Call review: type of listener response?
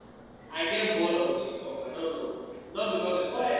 listening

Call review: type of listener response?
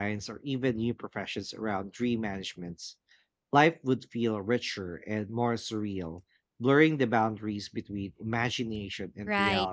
taking over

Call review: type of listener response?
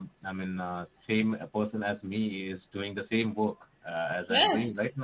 taking over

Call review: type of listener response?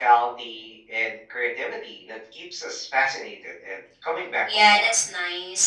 taking over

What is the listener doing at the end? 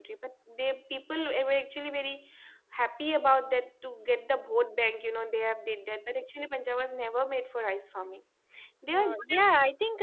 taking over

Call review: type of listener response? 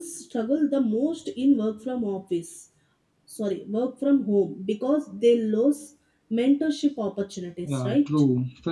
taking over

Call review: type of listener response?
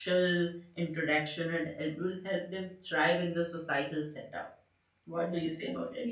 taking over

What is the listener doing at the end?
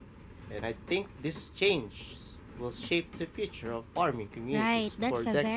taking over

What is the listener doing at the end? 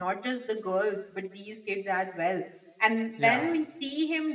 listening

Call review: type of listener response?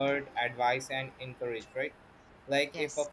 listening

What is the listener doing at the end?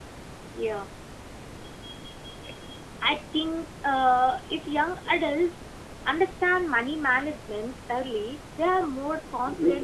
listening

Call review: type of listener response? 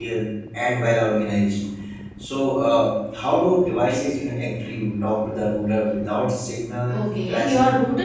taking over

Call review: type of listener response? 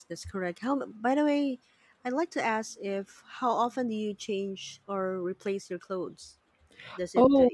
listening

